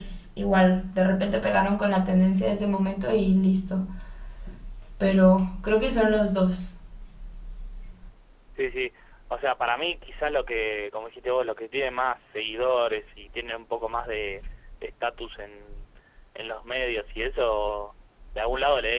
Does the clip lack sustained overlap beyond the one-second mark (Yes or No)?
Yes